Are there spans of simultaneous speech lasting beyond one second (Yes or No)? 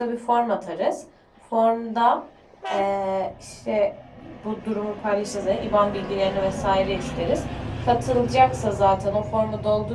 No